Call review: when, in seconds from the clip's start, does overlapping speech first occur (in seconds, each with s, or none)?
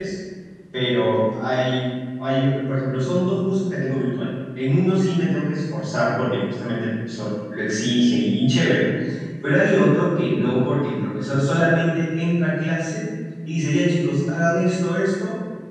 none